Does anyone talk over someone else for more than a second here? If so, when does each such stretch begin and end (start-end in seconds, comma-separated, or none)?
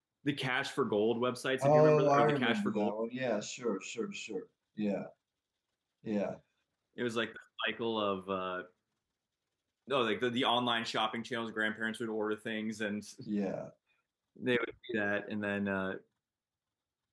1.6-2.9